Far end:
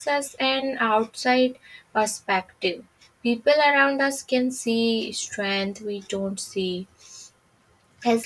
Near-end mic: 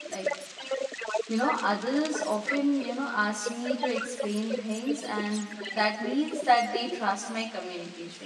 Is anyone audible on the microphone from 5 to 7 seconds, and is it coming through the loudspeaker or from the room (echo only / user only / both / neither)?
both